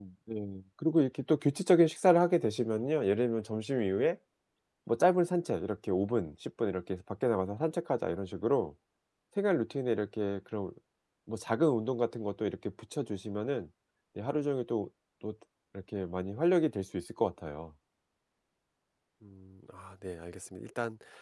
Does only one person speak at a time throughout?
Yes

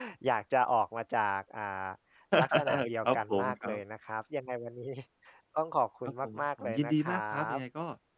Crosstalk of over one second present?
Yes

